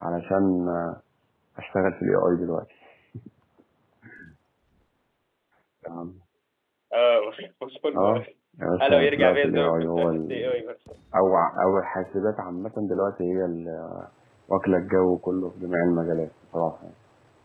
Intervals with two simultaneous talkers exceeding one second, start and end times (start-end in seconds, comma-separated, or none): 8.8-10.5